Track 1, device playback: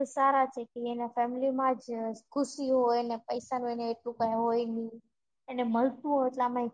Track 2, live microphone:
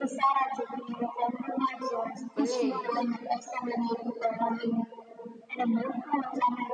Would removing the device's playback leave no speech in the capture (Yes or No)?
No